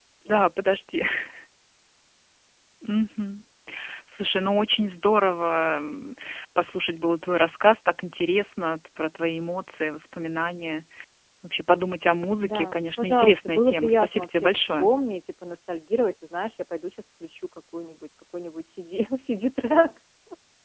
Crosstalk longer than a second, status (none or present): present